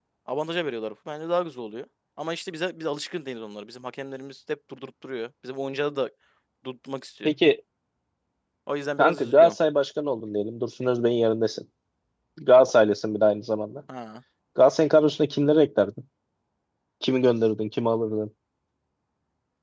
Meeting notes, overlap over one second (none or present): none